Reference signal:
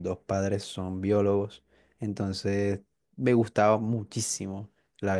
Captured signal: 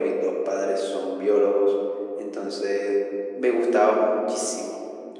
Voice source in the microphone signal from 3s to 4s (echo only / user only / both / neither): echo only